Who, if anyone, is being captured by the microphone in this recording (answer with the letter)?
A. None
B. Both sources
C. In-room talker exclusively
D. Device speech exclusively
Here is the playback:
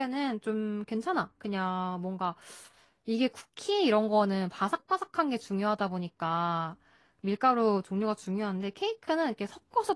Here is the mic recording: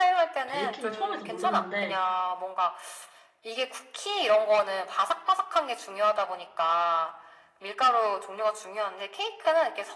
B